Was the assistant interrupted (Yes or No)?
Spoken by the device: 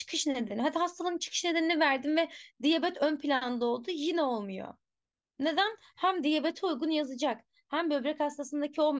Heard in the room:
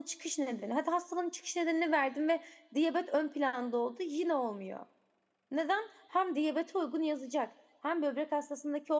No